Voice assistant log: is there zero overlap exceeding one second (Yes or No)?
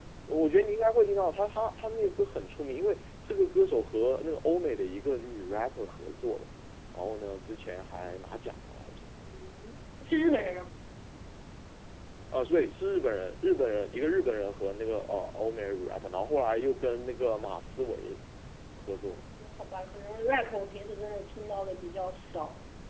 Yes